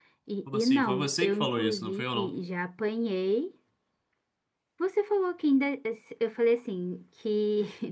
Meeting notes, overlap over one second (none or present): present